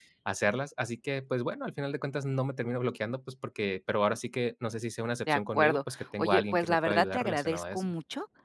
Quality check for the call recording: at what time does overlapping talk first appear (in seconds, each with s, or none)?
5.3 s